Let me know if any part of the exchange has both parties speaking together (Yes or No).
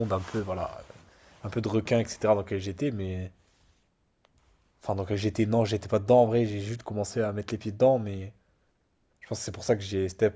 No